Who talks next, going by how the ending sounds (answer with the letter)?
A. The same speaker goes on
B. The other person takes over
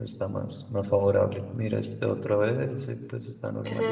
B